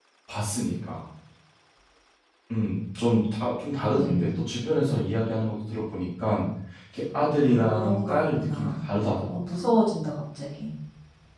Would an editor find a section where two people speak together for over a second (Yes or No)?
Yes